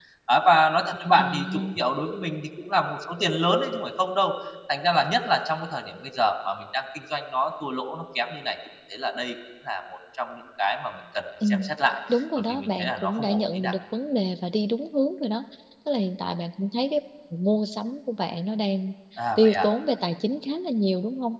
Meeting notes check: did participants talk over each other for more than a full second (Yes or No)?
Yes